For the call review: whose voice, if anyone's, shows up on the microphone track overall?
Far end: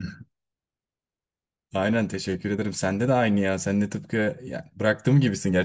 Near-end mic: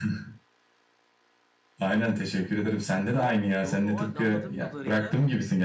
both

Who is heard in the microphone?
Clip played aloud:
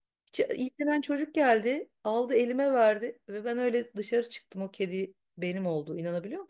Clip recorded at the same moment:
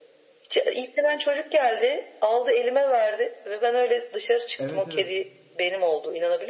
both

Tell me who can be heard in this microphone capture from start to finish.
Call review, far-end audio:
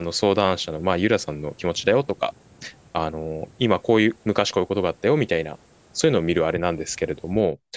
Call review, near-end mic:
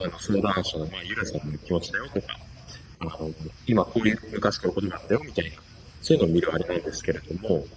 echo only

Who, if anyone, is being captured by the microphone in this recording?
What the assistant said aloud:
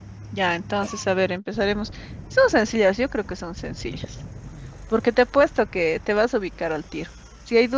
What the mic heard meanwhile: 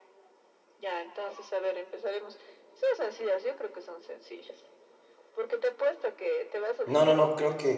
both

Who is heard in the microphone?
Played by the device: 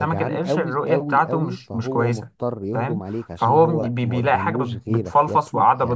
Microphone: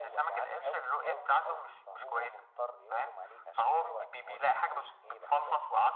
echo only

